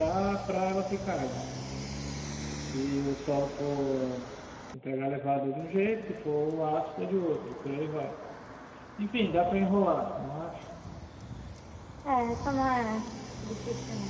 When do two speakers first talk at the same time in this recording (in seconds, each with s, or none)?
none